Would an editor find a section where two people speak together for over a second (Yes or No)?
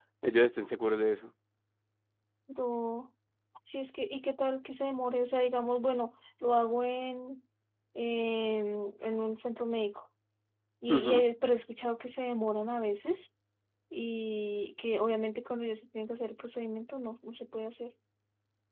No